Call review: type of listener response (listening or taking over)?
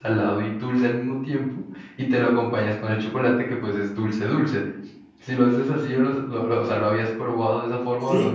taking over